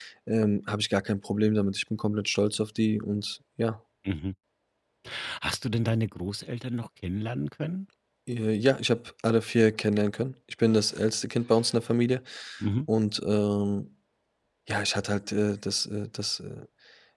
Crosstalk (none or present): none